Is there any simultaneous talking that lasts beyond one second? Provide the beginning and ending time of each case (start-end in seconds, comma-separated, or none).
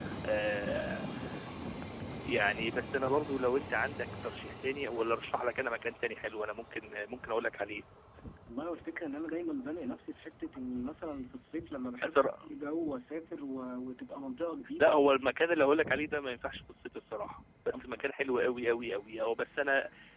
none